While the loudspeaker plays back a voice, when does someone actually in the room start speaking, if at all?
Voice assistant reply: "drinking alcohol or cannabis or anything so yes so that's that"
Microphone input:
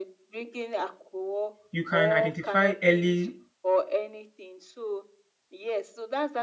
1.7 s

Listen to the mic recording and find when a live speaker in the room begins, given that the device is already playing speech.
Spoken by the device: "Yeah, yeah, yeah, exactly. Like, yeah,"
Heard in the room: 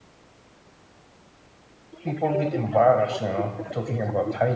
2.0 s

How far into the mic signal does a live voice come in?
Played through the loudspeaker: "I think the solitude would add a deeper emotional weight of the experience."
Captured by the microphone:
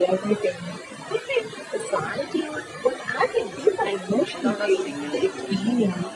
4.3 s

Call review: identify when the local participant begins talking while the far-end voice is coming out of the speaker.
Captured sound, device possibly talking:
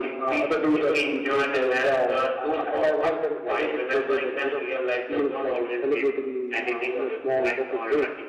none

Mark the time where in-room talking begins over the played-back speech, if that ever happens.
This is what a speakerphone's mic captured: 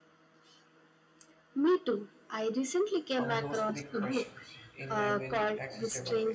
3.1 s

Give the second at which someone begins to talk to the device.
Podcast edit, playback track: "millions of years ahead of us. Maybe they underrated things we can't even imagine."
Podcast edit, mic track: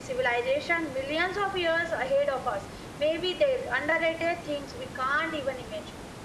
none

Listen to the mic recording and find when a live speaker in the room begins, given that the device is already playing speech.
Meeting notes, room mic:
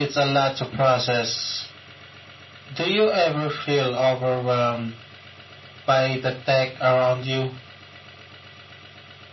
none

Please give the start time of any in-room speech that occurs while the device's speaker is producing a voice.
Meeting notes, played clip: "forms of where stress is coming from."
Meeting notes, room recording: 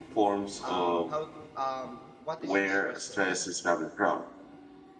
0.6 s

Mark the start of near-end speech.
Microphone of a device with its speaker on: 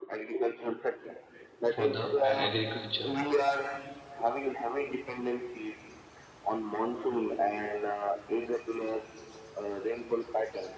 1.7 s

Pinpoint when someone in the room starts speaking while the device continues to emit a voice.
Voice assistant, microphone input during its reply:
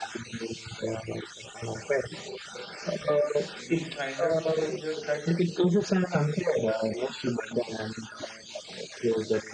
3.6 s

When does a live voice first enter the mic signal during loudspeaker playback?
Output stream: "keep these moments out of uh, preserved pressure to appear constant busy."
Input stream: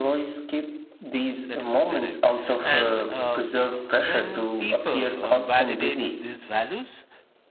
1.4 s

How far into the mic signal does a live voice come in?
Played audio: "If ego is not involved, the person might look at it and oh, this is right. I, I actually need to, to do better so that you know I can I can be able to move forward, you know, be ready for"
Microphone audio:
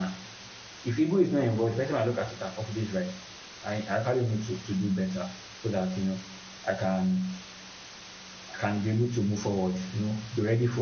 none

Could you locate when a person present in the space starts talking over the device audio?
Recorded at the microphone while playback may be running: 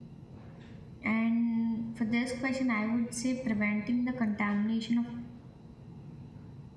1.0 s

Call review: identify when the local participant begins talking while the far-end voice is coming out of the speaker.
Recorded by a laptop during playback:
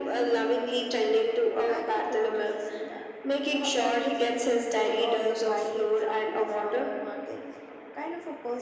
1.6 s

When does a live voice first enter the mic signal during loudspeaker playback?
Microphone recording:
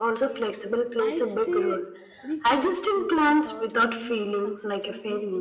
1.0 s

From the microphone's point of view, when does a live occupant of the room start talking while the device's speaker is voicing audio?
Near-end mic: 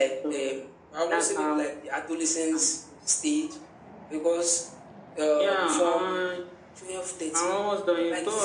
none

